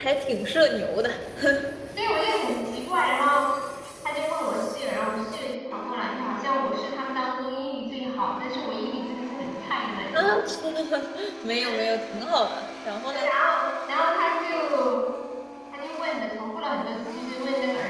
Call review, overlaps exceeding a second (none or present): none